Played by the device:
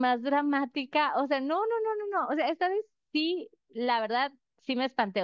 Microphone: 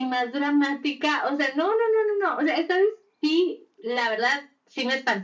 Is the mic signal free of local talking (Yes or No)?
Yes